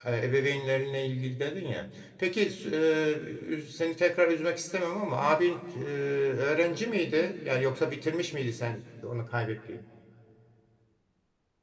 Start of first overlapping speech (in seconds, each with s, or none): none